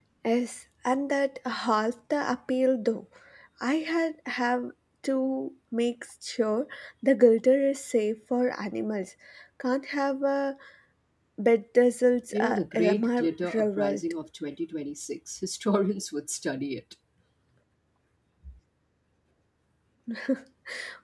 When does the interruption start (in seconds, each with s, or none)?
12.3 s